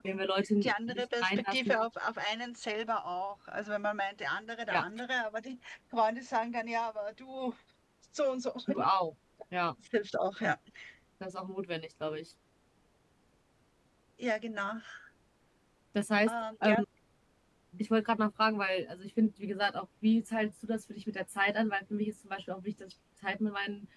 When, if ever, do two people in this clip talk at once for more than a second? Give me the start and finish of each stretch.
0.6-1.9

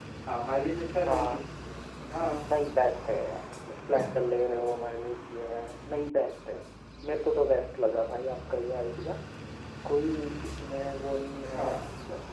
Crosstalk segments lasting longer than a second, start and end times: none

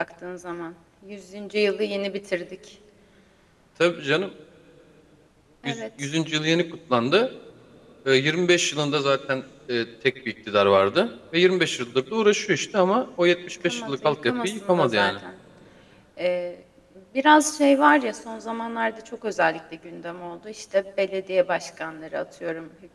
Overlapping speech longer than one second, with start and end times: 13.7-15.1

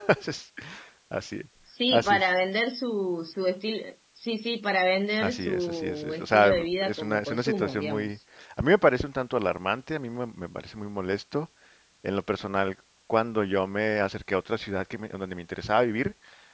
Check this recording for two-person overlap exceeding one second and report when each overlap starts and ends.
5.2-8.2

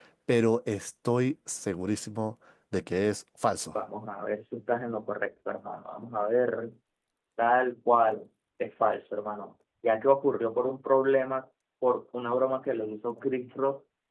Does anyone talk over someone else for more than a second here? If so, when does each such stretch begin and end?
none

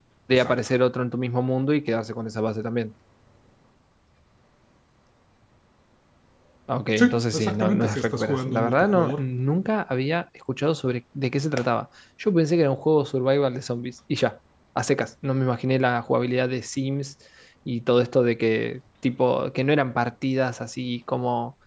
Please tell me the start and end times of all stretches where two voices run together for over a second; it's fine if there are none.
7.0-9.2

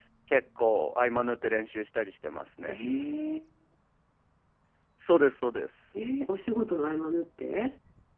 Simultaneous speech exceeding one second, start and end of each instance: none

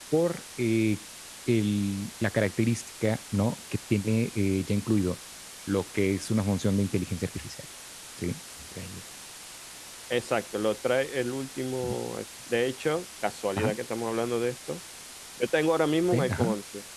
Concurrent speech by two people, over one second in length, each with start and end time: none

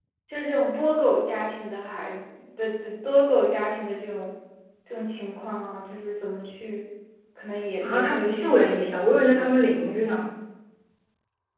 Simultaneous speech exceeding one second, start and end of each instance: 7.8-9.7

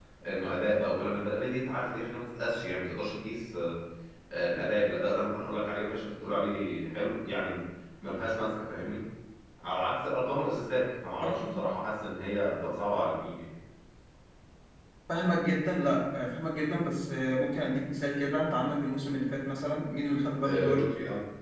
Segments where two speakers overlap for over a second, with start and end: none

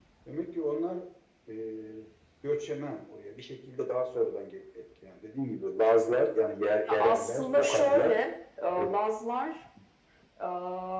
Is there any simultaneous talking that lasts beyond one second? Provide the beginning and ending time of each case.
6.9-8.2

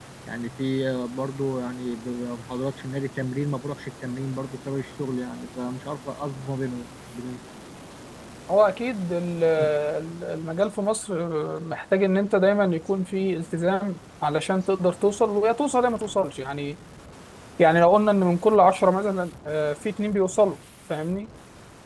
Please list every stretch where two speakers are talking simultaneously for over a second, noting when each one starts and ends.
none

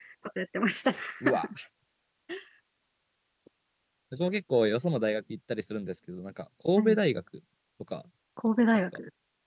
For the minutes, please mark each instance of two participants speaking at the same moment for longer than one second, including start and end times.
none

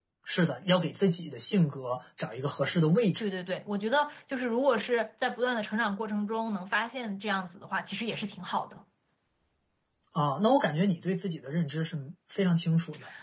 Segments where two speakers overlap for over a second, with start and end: none

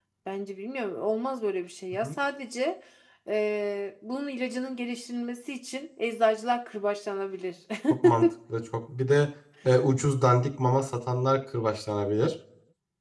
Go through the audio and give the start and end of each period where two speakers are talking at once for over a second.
none

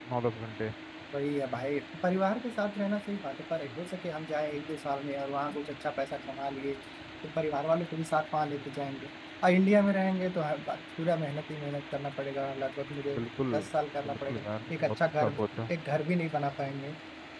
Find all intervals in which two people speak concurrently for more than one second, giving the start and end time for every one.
14.0-15.4

